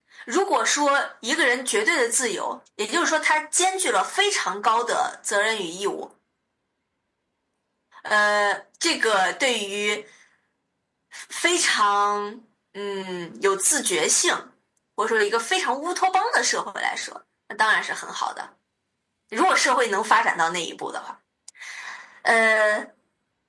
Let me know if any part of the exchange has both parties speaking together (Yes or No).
No